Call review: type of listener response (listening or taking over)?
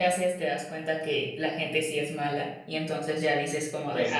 taking over